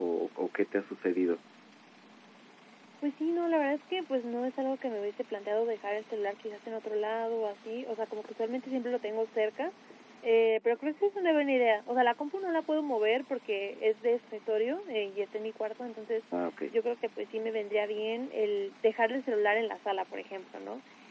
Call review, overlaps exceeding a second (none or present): none